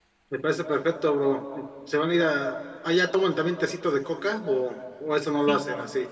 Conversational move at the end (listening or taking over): taking over